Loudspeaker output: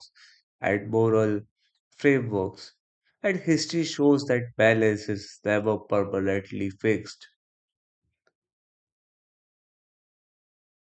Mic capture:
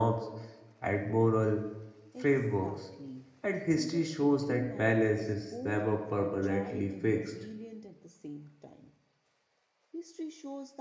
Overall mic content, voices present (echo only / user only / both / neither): both